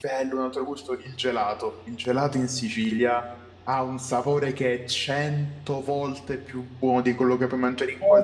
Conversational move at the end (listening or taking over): taking over